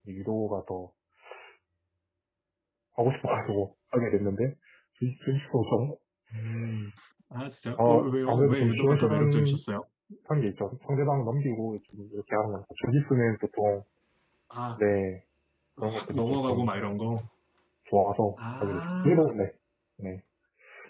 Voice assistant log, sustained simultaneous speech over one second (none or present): present